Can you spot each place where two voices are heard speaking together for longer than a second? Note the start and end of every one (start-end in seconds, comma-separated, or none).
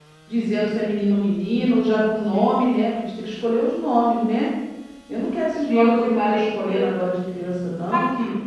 5.7-6.9